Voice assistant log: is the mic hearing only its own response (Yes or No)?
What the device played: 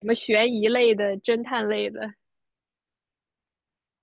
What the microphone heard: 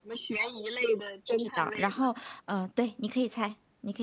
No